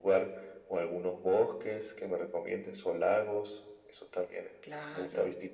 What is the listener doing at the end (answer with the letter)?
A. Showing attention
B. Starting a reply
B